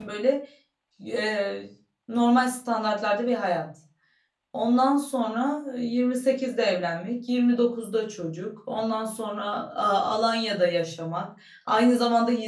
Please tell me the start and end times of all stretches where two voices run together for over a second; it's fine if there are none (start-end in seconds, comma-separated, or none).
none